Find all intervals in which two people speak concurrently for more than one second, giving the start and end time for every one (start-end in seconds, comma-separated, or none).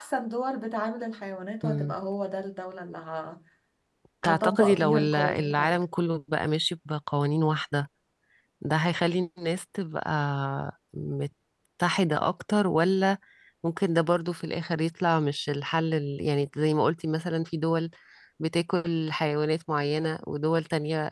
4.2-5.8